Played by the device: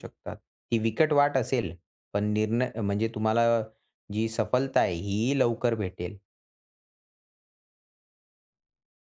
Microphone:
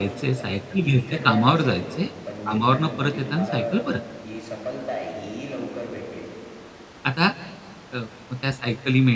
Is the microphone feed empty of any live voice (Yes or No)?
No